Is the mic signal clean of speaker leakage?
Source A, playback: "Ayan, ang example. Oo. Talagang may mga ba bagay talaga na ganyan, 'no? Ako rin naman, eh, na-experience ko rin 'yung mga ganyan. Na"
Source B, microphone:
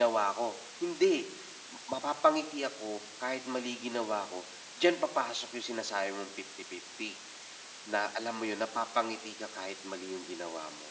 Yes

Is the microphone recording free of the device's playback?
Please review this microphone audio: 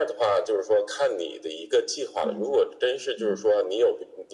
No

